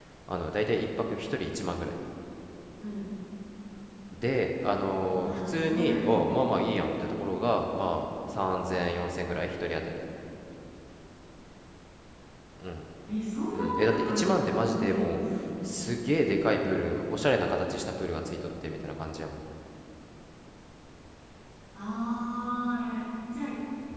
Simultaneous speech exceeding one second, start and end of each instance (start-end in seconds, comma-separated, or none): 5.2-6.6, 13.5-15.2